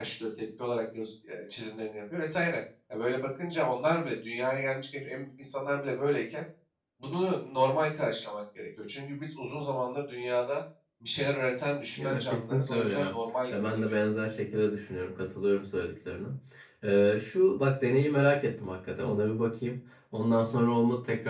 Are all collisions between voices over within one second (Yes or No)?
No